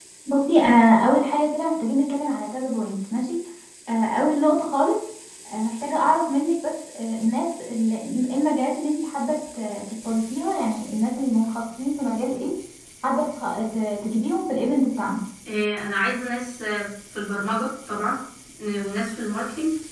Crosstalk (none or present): none